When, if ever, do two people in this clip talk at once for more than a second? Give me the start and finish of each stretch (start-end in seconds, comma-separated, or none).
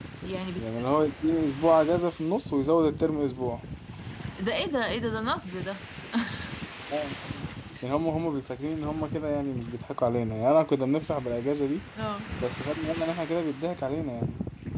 none